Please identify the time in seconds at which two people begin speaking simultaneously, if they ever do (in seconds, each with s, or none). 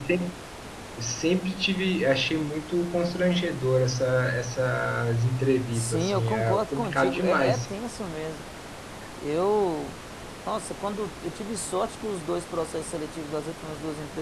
5.7 s